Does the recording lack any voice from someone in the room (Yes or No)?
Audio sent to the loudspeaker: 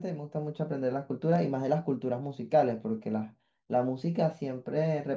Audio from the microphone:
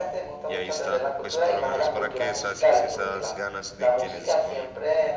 No